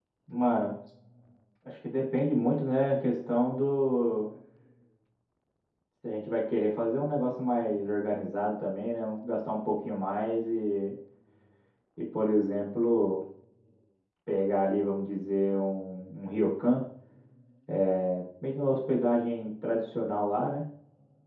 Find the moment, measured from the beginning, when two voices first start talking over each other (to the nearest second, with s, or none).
none